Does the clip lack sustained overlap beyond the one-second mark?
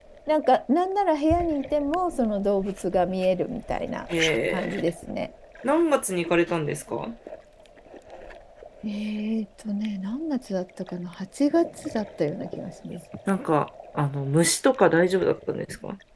Yes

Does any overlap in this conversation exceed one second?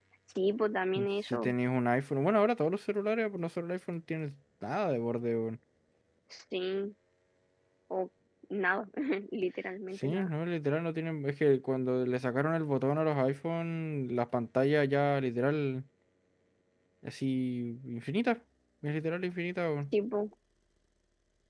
No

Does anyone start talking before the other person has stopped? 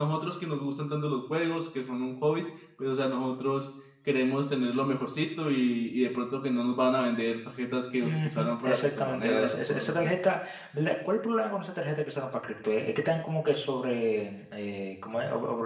Yes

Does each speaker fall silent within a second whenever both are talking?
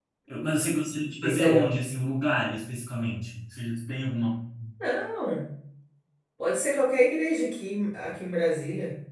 Yes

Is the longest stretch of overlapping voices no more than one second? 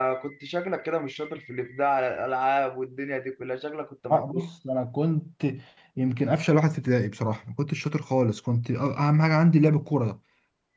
Yes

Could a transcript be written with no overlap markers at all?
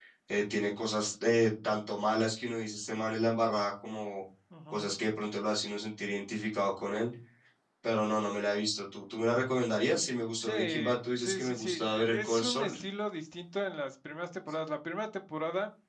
No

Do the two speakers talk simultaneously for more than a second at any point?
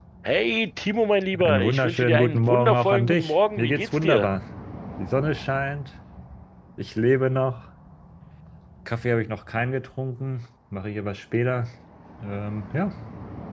Yes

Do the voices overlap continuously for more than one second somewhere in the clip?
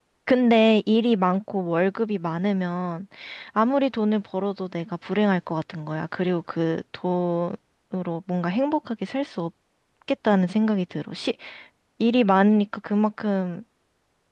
No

